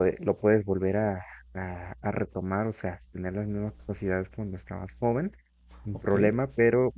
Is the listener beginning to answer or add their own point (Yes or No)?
No